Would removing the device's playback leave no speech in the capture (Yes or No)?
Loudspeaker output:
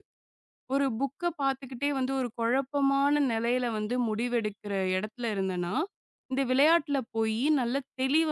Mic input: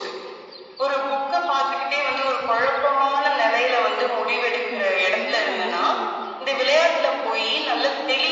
No